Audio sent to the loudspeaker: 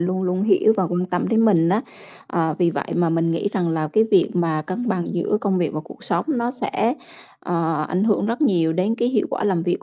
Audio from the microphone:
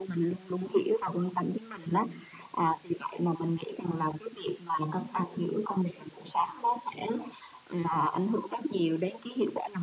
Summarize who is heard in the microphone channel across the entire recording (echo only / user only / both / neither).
echo only